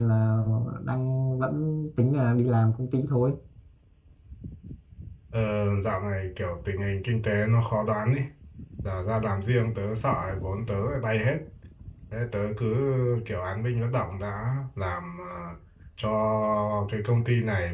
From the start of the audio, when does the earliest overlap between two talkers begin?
none

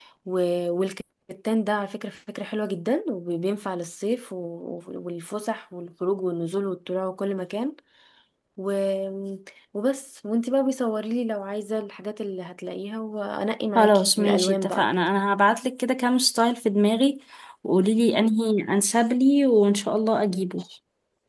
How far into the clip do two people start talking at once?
14 s

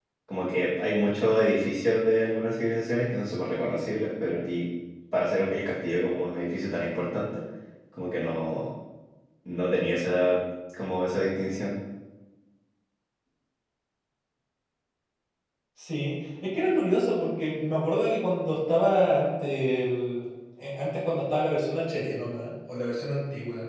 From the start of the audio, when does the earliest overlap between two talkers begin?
none

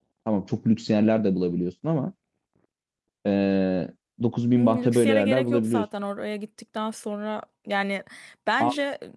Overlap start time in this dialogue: 5 s

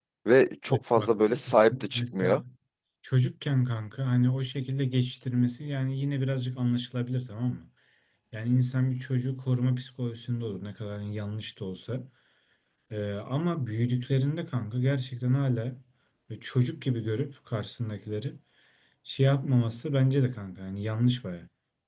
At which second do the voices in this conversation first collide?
1 s

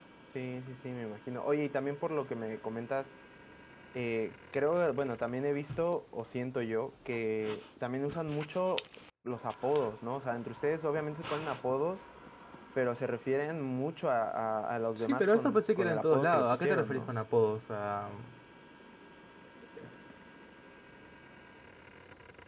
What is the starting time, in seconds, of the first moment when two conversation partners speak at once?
15 s

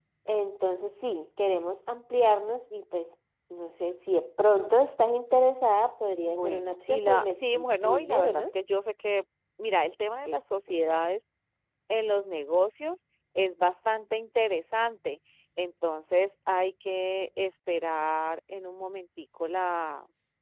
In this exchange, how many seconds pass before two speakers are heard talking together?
6 s

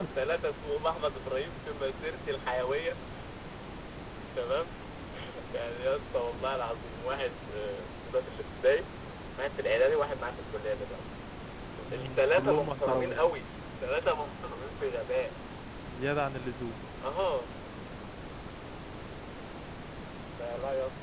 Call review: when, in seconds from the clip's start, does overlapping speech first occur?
12 s

